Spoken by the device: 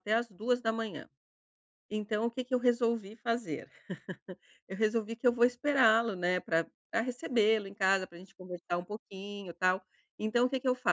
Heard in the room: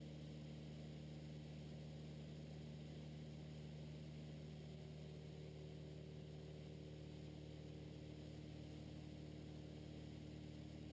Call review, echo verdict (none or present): none